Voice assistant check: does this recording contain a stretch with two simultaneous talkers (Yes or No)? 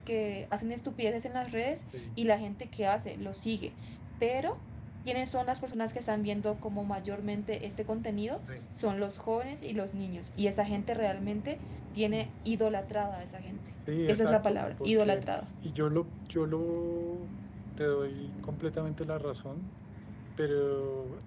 Yes